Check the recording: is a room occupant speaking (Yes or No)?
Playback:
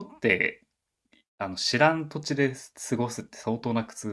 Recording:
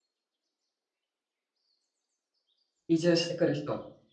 Yes